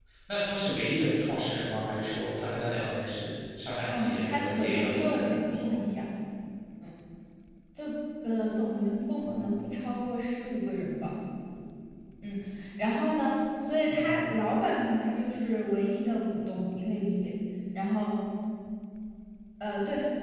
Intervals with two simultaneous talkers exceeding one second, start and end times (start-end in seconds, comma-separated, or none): 3.9-5.7